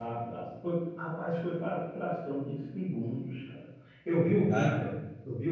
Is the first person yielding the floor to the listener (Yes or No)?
No